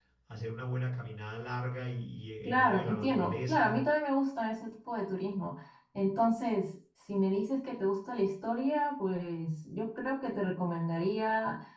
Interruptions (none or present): present